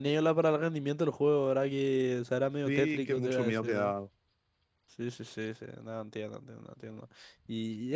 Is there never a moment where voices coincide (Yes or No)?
No